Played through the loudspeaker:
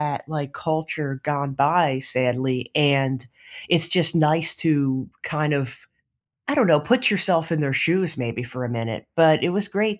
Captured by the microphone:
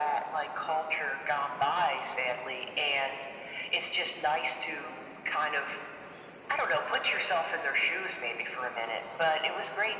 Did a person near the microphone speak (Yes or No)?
No